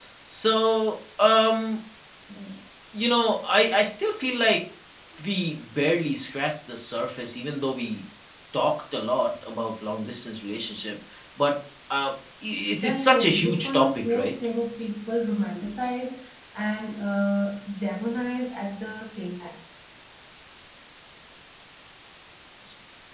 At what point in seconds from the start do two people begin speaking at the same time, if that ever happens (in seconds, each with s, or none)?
12.8 s